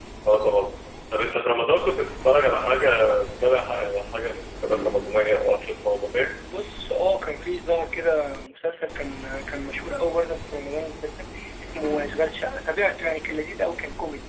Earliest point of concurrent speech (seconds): none

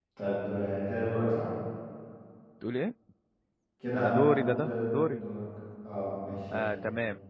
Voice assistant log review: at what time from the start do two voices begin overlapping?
4.0 s

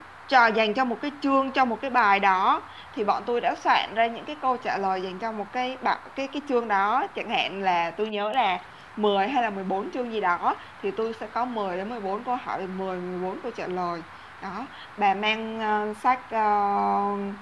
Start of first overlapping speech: none

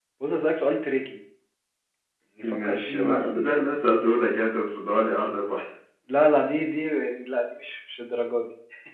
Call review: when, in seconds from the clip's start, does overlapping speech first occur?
2.4 s

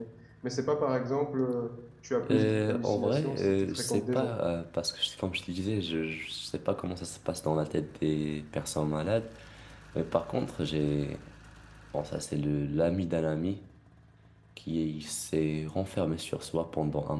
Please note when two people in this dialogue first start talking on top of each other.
2.2 s

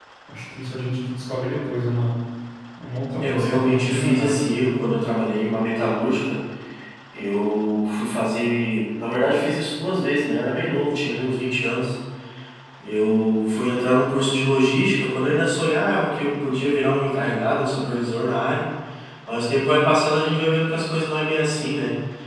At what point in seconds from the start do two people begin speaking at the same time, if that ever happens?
3.2 s

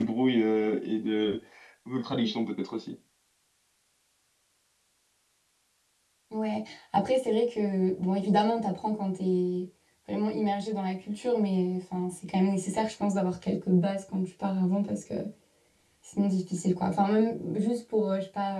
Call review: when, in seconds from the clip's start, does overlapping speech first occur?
none

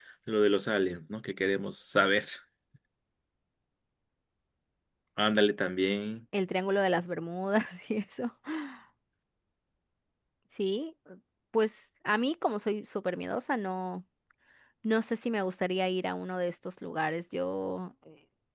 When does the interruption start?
none

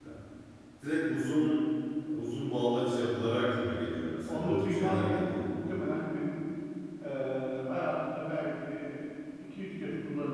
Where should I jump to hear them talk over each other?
4.3 s

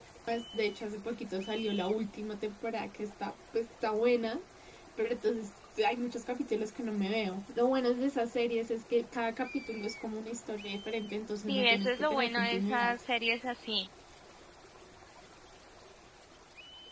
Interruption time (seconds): 11.5 s

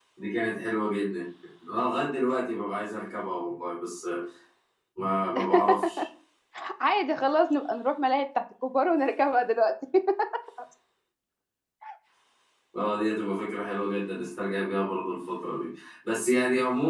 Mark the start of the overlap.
none

